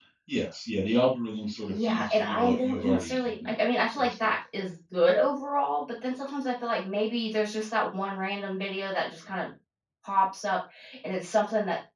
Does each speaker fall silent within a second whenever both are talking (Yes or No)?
No